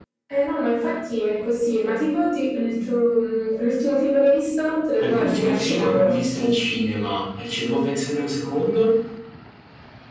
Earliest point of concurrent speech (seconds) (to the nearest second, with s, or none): 5 s